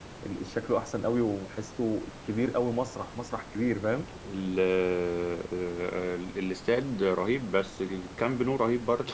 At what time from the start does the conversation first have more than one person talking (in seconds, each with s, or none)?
none